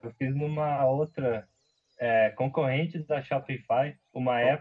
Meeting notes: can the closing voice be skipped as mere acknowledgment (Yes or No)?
Yes